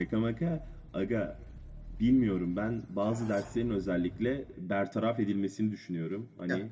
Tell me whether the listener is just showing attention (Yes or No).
Yes